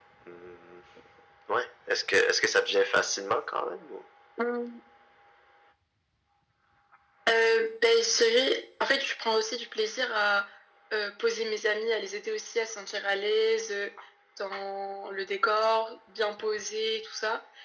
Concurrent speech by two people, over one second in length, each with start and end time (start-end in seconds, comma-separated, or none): none